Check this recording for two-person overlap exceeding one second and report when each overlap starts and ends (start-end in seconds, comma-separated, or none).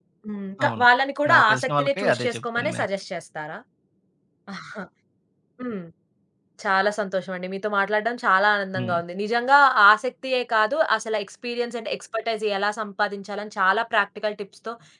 1.3-2.9